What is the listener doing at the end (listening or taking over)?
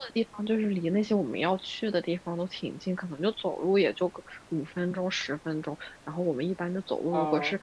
listening